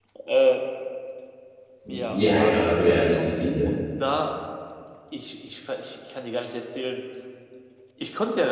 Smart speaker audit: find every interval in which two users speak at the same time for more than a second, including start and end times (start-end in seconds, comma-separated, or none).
2.1-3.7